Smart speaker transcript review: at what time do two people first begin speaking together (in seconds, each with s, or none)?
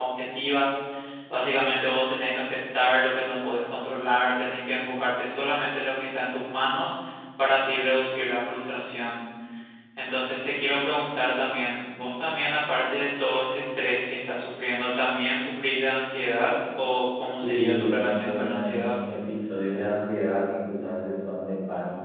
17.4 s